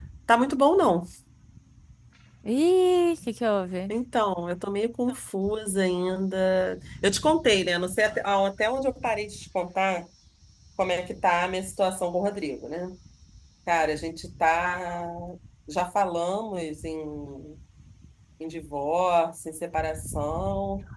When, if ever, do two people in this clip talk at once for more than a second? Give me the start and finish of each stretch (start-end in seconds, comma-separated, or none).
none